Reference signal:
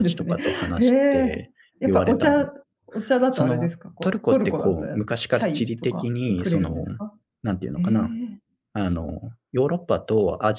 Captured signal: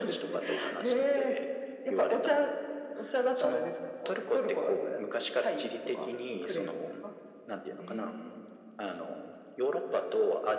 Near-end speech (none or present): none